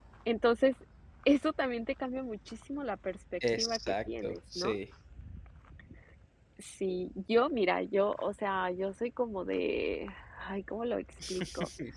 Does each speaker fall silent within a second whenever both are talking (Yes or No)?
No